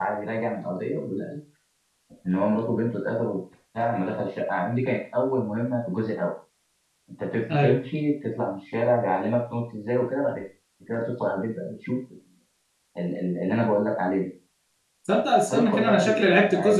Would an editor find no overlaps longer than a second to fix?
No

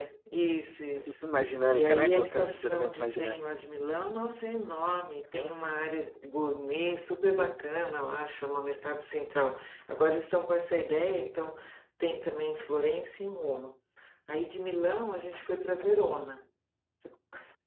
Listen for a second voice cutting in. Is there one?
Yes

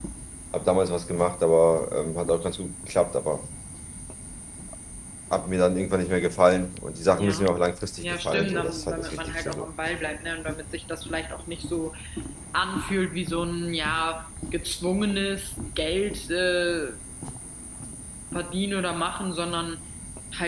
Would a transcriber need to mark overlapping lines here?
Yes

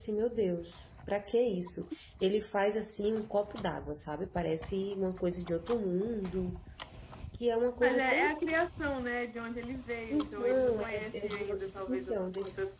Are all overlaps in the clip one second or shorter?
No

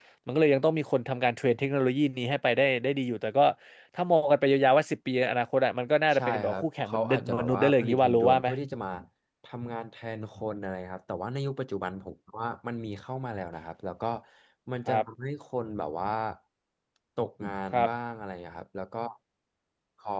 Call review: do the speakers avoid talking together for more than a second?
No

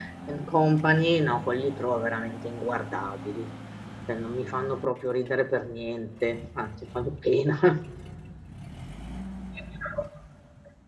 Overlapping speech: No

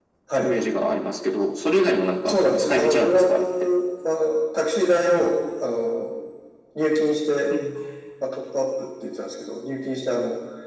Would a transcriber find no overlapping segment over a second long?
No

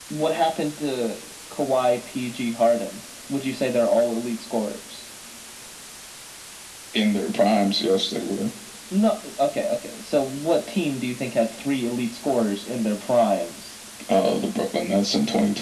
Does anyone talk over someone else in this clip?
No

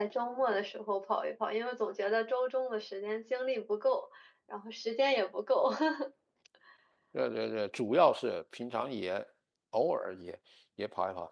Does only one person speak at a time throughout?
Yes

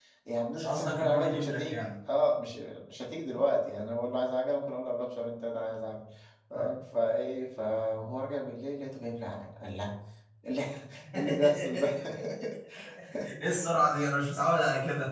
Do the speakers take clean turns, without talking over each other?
No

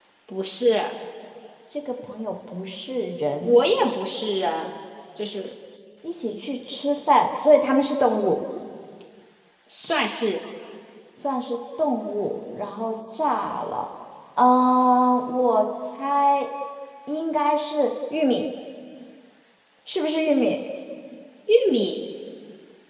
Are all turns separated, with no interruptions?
Yes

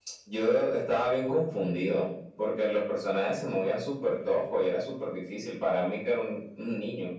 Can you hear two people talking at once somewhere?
No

